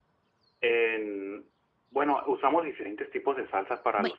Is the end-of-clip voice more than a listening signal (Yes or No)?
No